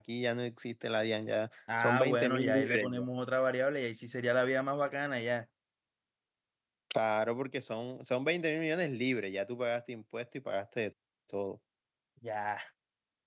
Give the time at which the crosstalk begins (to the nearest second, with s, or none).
2 s